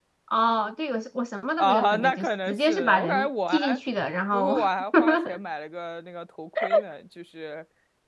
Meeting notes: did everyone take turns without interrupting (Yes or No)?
No